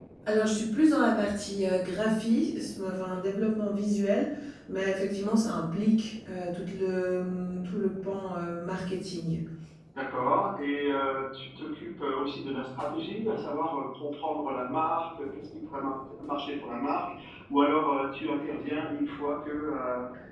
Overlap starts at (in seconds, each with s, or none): none